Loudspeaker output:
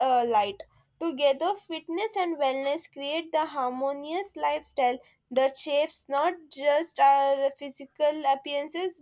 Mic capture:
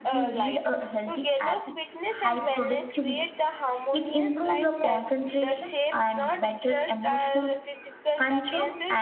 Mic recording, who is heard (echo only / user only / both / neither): both